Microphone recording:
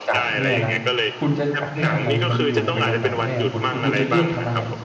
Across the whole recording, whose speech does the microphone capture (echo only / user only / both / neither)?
both